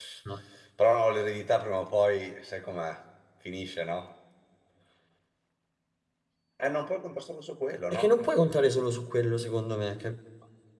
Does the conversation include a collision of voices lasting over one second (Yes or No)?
No